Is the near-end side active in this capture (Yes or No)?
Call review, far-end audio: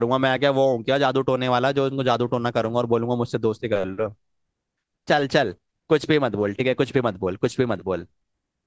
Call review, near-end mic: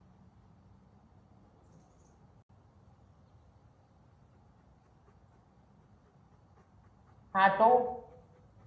Yes